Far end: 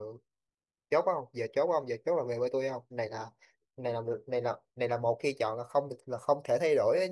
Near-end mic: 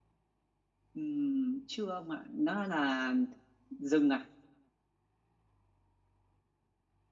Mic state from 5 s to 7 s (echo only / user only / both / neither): neither